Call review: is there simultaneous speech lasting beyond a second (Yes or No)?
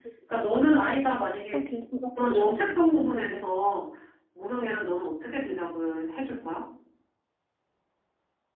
No